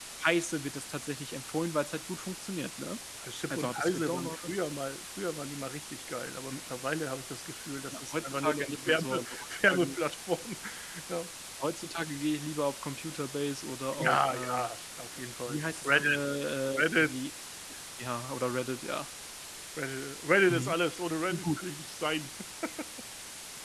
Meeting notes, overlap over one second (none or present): present